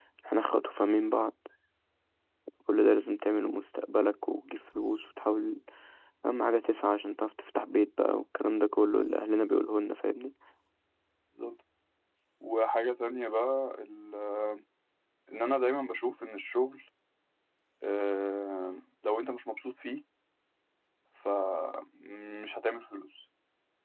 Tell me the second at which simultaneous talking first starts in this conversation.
none

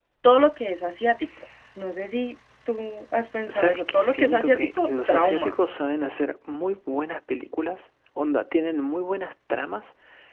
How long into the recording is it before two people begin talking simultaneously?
3 s

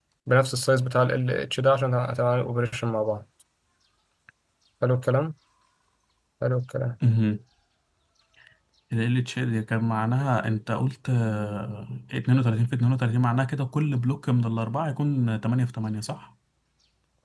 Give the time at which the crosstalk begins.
none

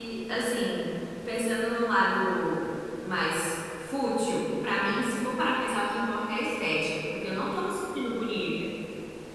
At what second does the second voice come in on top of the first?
none

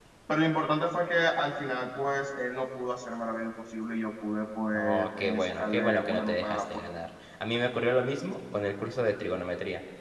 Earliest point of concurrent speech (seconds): 5 s

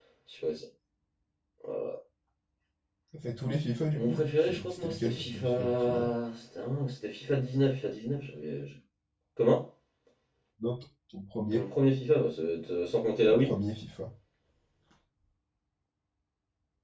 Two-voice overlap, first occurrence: 4 s

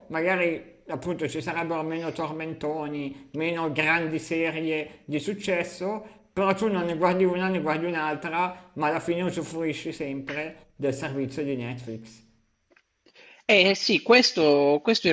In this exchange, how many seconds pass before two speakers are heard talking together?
none

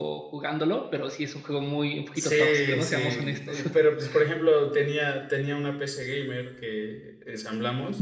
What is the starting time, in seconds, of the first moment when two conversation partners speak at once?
2 s

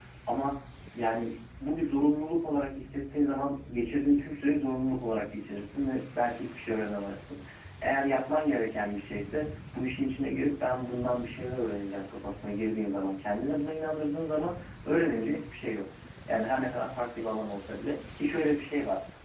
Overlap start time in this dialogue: none

